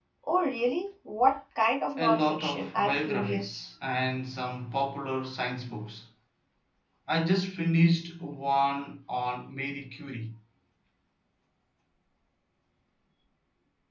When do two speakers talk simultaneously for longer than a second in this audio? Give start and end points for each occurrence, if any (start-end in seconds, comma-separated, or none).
2.0-3.7